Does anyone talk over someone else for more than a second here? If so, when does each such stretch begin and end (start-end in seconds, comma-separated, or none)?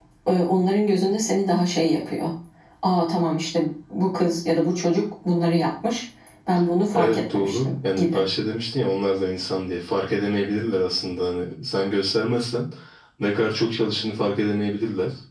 6.9-8.2